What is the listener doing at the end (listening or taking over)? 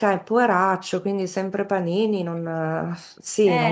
taking over